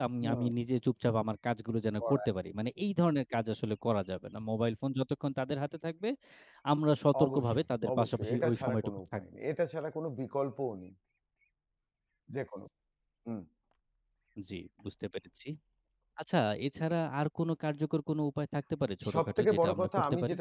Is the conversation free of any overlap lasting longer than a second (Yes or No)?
No